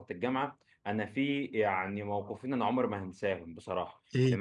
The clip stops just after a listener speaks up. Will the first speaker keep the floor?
Yes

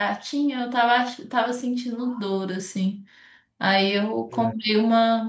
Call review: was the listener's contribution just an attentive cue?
Yes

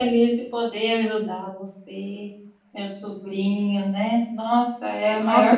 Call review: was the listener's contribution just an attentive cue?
No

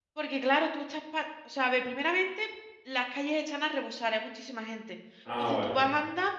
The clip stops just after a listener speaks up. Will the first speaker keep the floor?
Yes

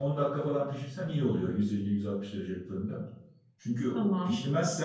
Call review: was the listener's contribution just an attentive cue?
Yes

